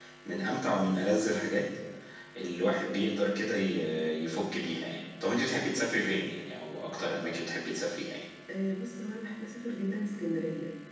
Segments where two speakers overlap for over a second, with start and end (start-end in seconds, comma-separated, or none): none